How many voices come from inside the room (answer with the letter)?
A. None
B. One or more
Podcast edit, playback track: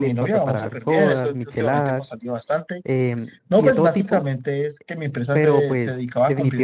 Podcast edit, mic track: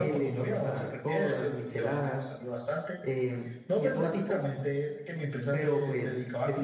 A